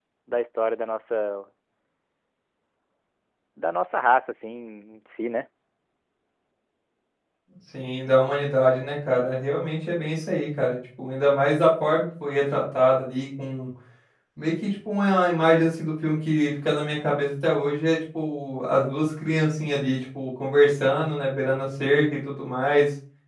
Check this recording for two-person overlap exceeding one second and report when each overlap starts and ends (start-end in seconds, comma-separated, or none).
none